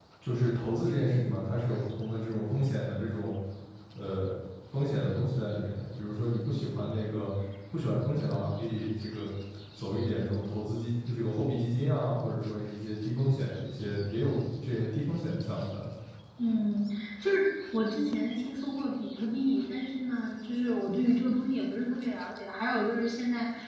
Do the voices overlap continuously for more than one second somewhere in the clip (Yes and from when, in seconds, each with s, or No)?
No